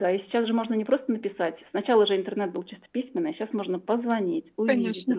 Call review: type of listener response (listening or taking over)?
taking over